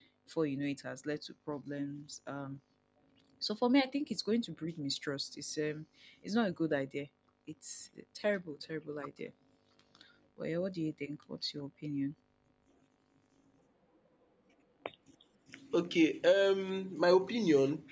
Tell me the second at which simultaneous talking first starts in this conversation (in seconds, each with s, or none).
none